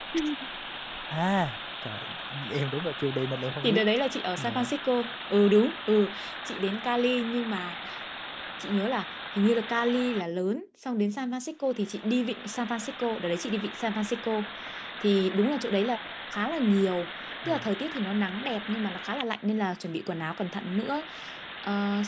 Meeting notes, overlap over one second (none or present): none